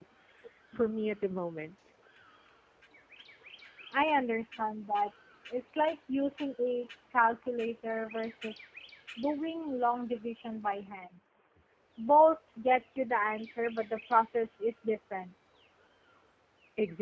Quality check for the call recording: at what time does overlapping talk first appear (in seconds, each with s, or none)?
none